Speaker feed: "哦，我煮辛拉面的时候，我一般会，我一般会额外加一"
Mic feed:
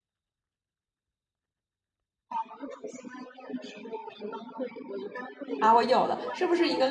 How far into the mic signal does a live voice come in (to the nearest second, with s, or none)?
6 s